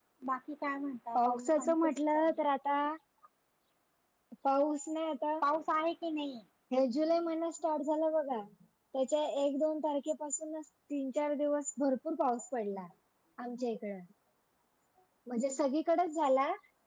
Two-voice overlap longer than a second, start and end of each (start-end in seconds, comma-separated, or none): 1.2-2.4